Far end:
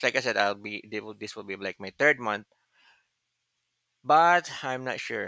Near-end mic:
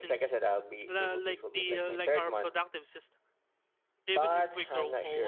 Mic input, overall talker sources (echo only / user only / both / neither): both